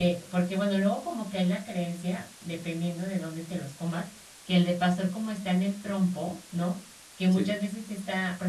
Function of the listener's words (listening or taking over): listening